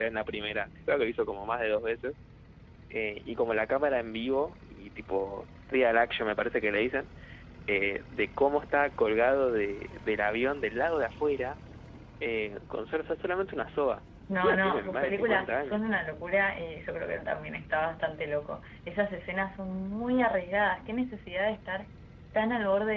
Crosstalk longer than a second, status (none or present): present